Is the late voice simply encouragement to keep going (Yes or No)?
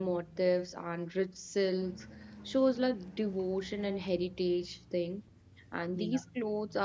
Yes